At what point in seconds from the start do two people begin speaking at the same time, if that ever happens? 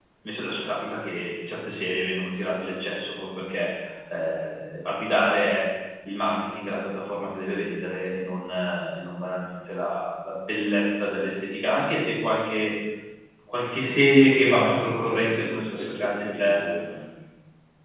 14.4 s

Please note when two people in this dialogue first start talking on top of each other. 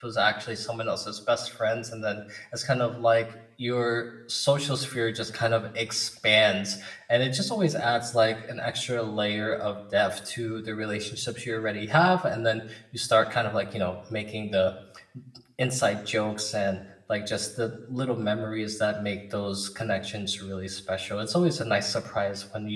none

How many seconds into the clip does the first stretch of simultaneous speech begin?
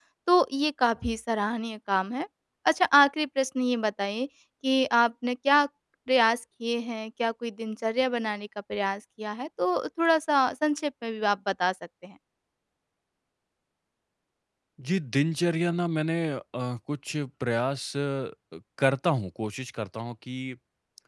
none

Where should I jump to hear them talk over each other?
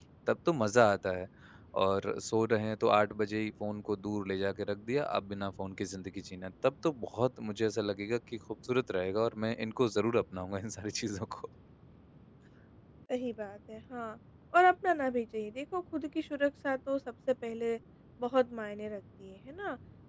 none

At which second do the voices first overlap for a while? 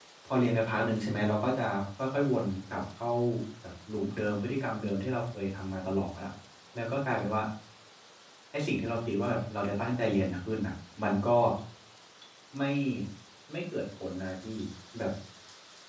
none

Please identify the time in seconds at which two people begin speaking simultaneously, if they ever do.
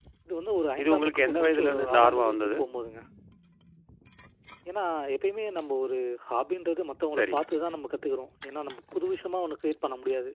0.8 s

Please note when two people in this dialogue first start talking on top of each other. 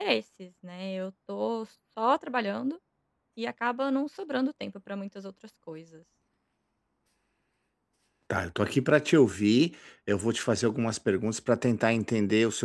none

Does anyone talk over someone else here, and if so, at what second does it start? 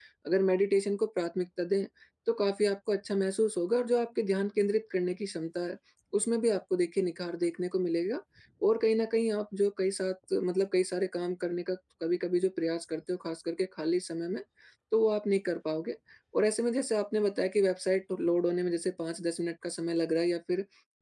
none

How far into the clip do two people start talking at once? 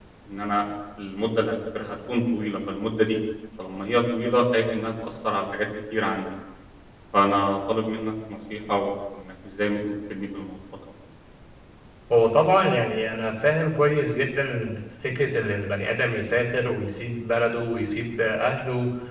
none

